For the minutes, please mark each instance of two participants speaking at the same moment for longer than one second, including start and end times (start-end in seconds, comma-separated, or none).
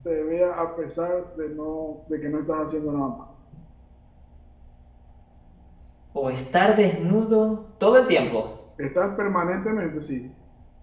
none